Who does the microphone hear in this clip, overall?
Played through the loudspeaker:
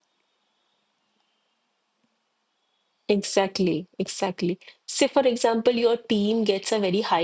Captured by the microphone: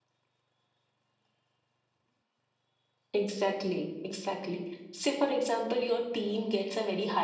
echo only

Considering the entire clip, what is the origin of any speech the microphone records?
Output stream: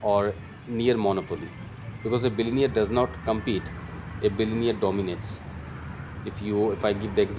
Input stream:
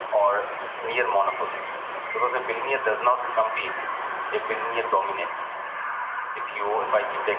echo only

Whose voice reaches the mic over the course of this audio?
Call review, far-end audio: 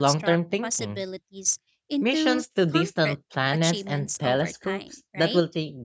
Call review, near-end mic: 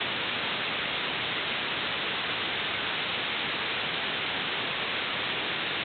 neither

